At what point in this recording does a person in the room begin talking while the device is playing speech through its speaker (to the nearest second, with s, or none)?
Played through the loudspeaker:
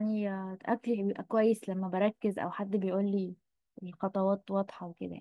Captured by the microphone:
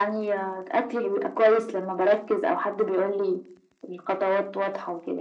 none